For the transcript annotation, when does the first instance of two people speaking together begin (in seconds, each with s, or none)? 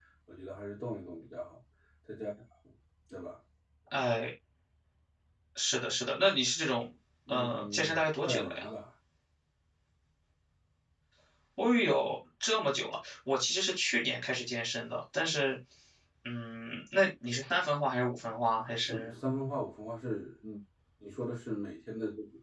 7.3 s